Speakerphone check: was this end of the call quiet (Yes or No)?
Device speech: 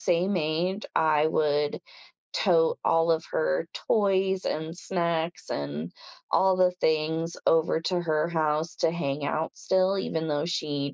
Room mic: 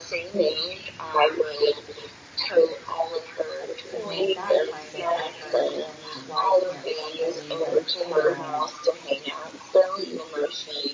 No